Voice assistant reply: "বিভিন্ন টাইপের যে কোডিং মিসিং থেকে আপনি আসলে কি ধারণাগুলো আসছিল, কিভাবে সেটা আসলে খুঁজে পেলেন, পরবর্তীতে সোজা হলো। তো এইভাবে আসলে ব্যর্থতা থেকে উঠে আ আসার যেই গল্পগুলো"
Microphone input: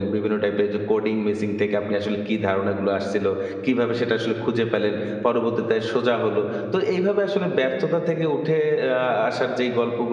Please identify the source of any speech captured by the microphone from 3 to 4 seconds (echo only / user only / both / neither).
echo only